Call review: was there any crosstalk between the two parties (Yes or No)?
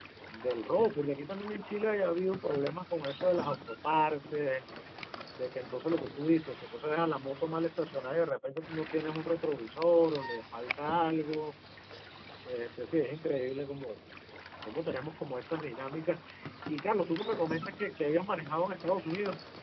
No